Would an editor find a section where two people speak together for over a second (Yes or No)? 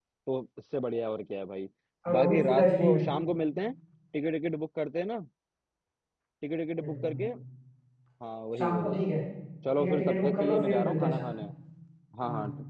Yes